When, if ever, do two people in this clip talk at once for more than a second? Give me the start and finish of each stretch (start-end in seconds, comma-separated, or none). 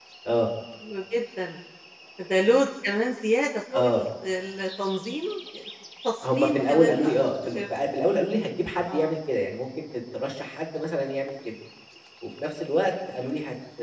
6.3-7.6